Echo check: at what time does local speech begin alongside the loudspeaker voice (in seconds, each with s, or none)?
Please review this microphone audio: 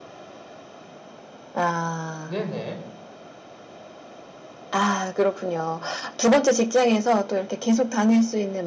2.2 s